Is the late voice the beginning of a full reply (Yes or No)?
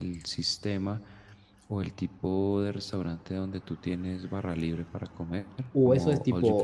Yes